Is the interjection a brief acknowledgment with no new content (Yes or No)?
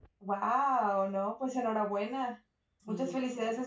Yes